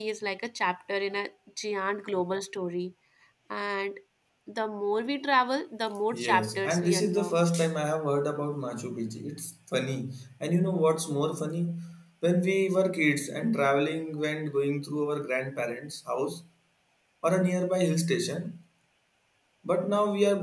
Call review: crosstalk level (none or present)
present